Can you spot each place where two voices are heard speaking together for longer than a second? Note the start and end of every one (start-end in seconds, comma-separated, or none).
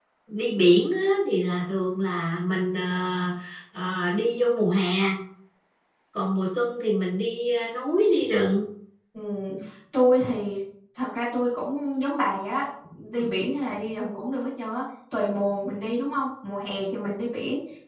none